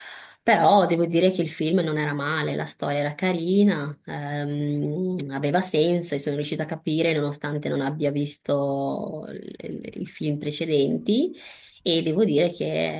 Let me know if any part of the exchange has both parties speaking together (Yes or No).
No